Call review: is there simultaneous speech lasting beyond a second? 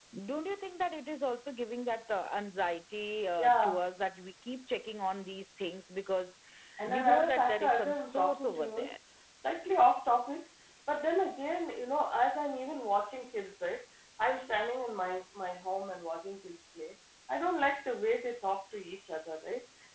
Yes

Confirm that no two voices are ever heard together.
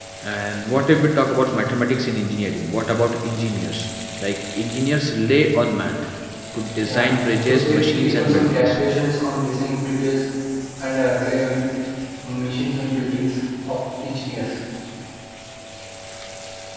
No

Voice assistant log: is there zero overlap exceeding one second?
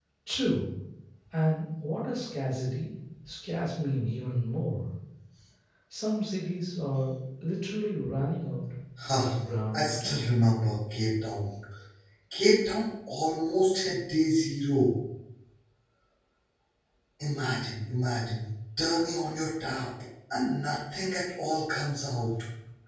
Yes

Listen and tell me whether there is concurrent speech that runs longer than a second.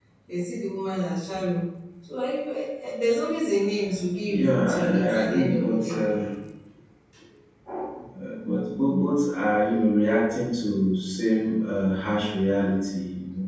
Yes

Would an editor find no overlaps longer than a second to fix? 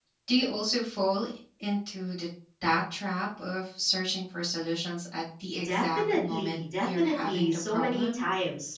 No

